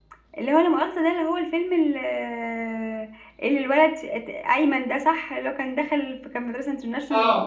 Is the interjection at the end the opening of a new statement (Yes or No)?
Yes